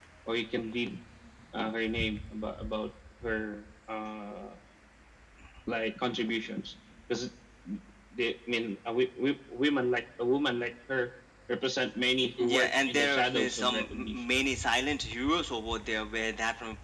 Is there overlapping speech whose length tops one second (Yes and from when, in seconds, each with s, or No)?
Yes, from 12.4 s